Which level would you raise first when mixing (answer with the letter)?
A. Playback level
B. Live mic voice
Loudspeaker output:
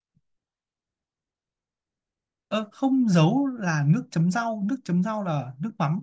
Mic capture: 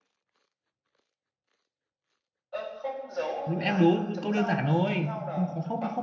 A